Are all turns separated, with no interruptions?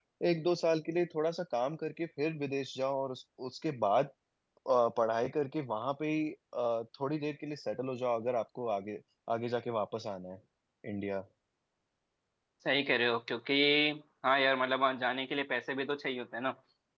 Yes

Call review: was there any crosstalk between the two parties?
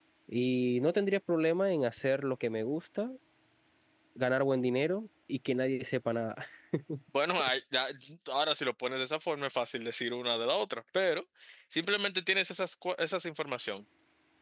No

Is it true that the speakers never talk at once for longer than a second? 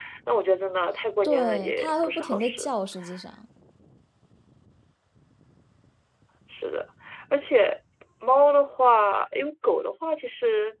No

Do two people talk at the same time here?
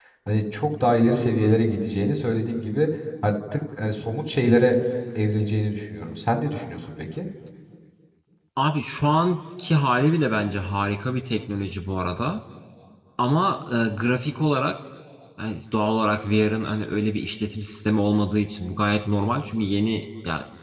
No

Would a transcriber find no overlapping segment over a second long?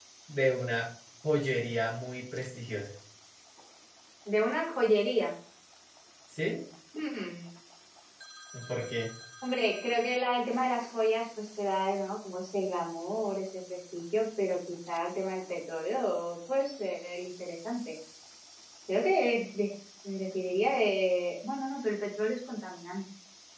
Yes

